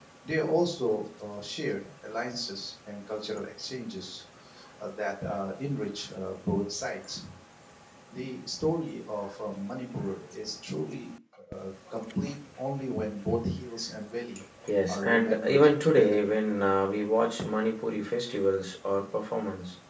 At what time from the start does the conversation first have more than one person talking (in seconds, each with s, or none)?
14.9 s